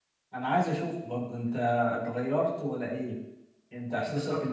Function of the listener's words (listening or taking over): taking over